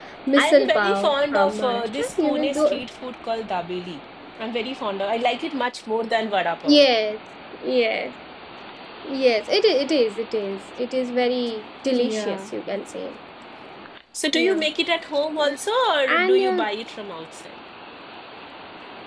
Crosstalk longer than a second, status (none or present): present